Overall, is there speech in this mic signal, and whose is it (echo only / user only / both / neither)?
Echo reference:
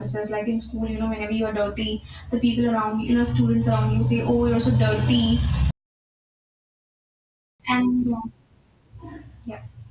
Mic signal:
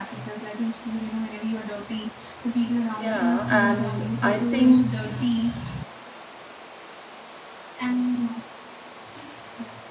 both